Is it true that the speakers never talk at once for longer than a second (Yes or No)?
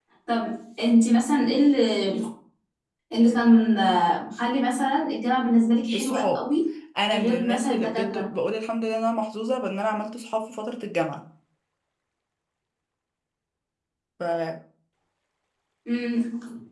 No